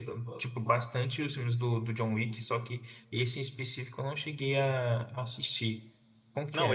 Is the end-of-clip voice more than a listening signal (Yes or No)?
Yes